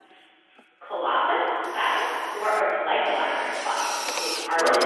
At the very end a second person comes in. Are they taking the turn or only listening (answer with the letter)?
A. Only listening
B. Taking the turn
A